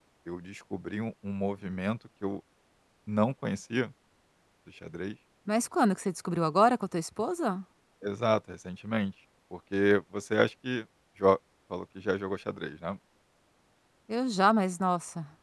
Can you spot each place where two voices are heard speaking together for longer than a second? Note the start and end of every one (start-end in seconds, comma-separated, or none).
none